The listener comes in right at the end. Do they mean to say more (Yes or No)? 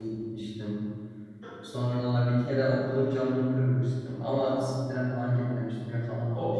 Yes